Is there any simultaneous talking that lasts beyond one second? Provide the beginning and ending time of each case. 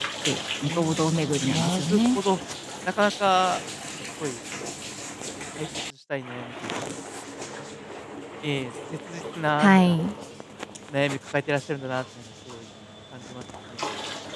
0.6-2.2

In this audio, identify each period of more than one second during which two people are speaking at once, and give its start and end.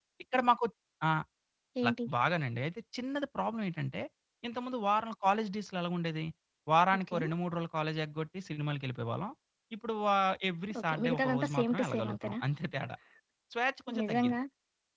10.8-12.4

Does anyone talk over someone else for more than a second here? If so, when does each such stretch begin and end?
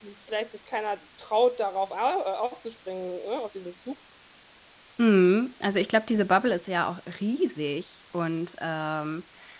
none

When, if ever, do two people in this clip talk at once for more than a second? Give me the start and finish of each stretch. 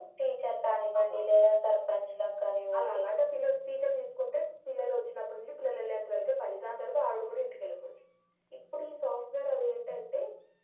none

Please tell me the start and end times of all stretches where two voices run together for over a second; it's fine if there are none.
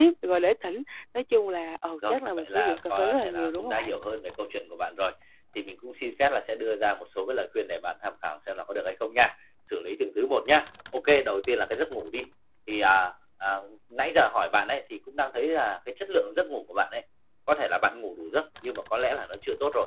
2.1-3.9

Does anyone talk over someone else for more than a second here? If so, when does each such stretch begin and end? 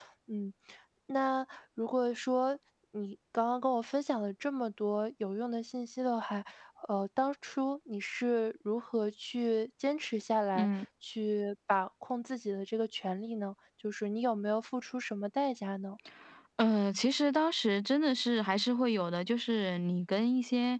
none

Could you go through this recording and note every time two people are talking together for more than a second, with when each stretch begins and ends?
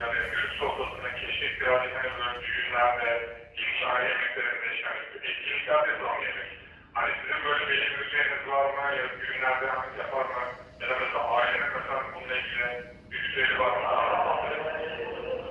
13.6-15.0

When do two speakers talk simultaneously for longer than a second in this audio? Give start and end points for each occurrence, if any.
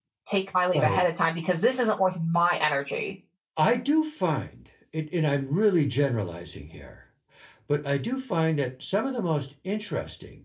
none

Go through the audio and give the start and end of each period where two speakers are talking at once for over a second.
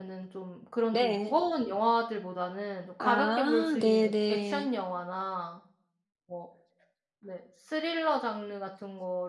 3.0-4.7

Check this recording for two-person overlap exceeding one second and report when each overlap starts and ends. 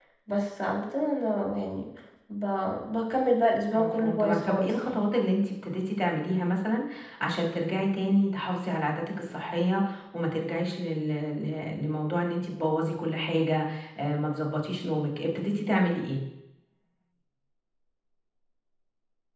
3.7-5.0

